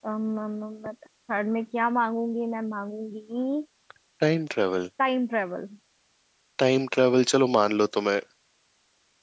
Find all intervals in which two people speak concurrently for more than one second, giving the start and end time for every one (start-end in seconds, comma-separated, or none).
none